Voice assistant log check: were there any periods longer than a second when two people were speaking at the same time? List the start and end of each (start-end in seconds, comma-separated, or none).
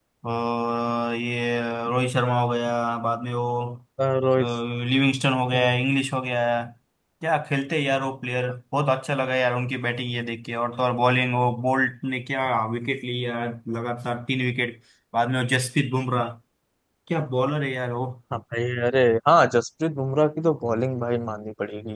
none